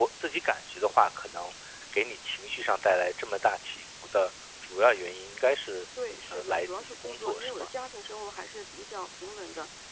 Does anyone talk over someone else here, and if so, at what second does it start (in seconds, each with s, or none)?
6.3 s